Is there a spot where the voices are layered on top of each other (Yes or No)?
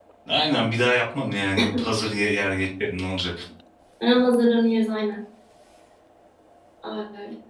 No